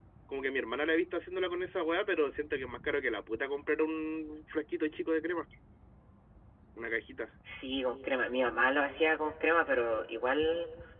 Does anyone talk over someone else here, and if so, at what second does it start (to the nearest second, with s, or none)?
none